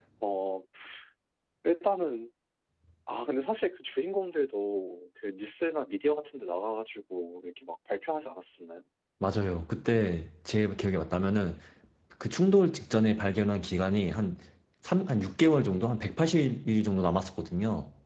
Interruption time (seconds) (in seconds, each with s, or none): none